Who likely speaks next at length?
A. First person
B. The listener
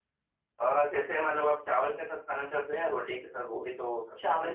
B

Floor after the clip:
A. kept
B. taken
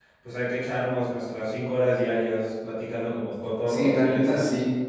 B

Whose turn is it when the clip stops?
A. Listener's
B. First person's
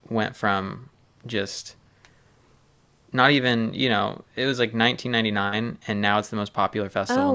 A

